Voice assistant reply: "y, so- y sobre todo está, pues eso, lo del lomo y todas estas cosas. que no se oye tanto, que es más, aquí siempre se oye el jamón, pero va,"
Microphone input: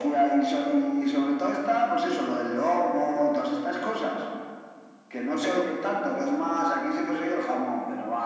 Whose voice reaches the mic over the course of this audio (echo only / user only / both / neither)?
echo only